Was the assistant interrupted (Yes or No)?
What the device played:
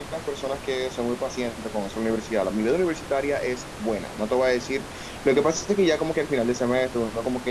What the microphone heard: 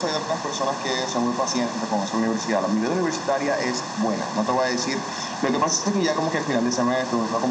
No